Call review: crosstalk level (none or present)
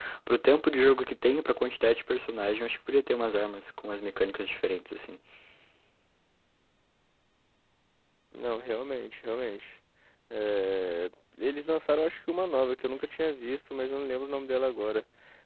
none